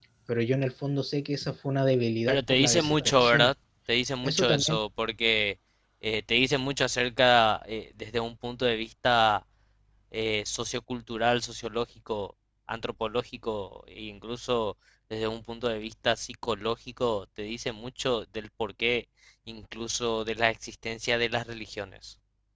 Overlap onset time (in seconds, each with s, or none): 2.3 s